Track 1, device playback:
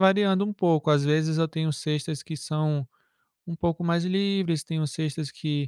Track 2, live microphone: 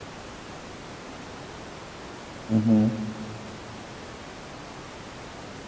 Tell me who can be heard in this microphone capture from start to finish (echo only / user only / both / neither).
user only